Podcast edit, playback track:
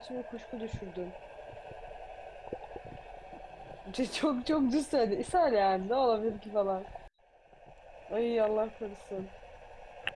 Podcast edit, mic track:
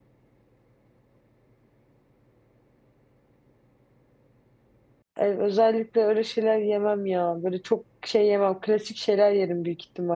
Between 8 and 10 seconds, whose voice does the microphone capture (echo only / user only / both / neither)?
user only